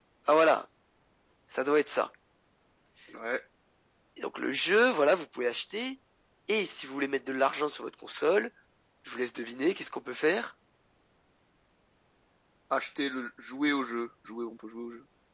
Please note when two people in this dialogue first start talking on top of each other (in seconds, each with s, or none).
none